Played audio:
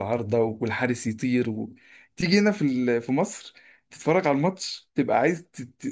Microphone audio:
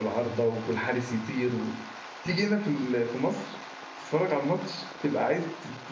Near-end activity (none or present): none